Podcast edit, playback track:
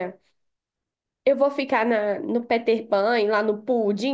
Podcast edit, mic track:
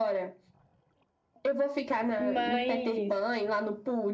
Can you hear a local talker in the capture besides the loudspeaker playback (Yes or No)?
Yes